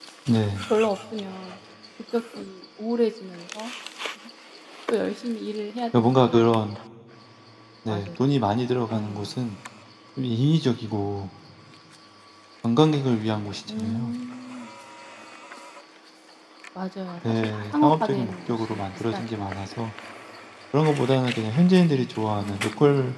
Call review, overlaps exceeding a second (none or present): present